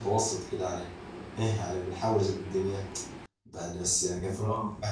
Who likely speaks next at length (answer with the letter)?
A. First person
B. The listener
A